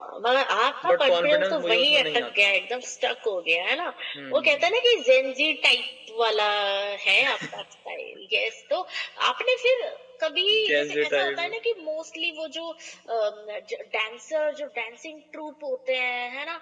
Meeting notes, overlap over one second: present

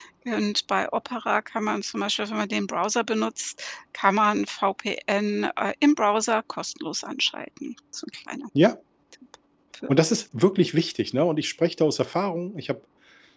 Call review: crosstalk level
none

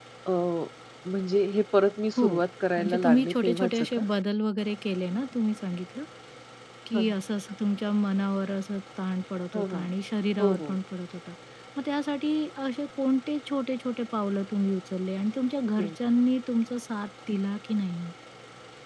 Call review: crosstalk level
present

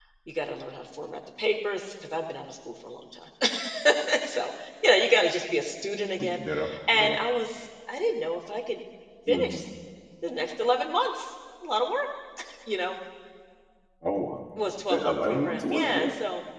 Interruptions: present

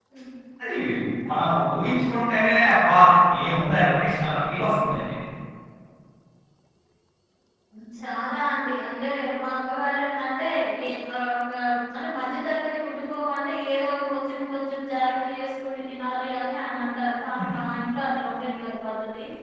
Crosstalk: none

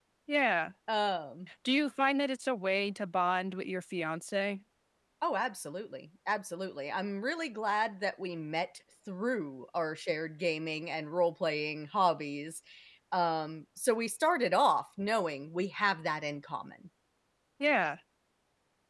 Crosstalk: none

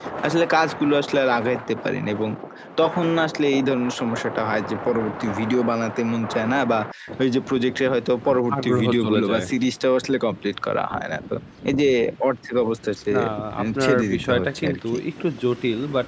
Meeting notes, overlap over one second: present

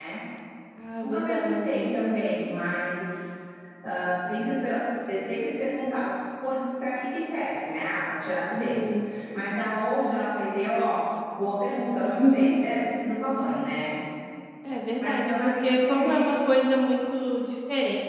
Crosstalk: present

